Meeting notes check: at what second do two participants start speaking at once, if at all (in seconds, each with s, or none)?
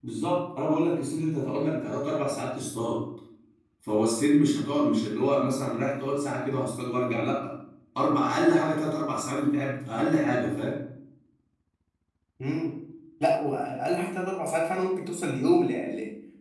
none